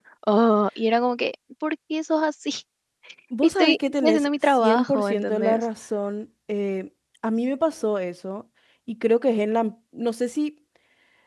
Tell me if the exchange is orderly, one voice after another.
No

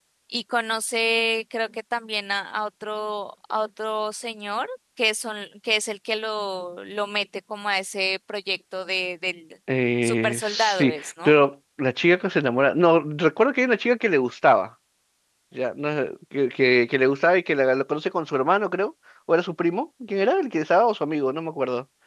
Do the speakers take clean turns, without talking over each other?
No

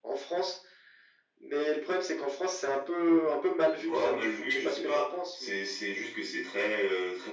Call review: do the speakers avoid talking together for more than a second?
No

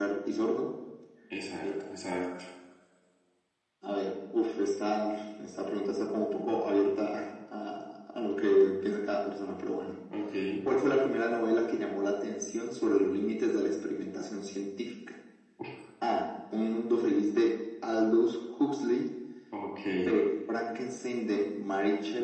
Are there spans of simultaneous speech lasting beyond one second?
No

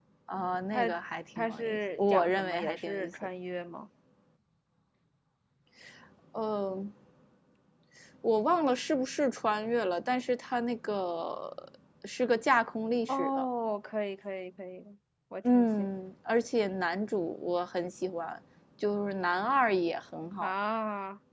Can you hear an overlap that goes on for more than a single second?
Yes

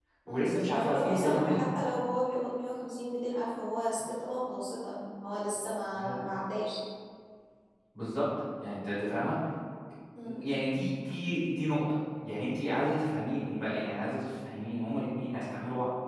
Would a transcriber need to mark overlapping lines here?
Yes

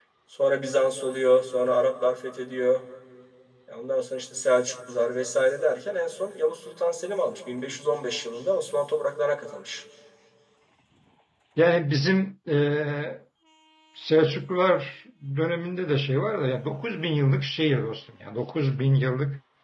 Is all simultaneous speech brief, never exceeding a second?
Yes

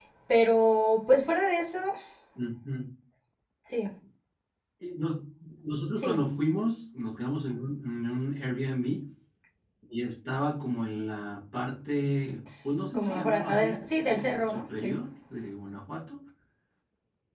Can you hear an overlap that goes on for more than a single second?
Yes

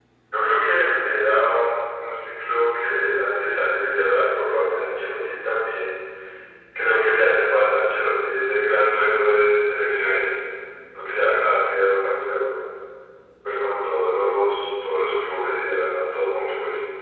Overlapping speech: No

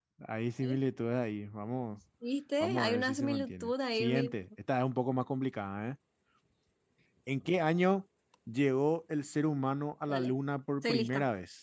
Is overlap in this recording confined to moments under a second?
No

